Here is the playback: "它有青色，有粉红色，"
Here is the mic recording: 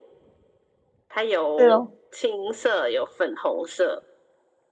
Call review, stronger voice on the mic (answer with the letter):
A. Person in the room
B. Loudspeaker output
A